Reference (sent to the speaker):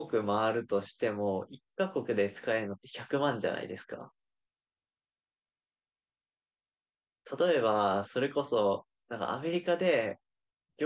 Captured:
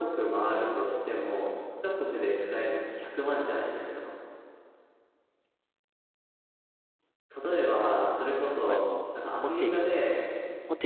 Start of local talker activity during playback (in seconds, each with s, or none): 8.6 s